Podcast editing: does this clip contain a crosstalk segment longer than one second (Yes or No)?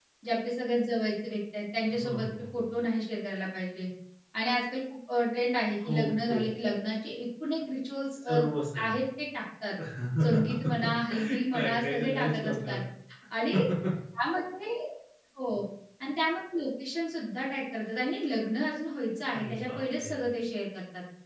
Yes